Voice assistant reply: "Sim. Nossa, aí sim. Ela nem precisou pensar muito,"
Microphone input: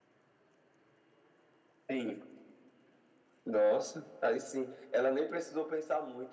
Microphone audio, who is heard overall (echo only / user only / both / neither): echo only